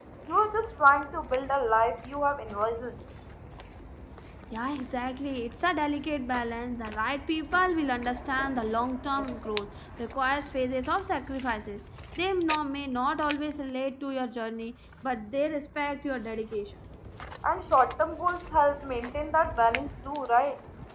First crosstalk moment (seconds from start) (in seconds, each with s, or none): none